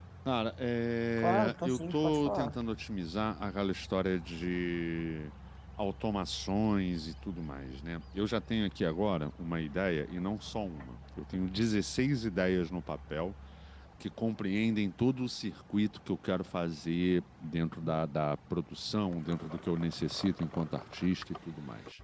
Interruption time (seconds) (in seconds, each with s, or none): 1.2 s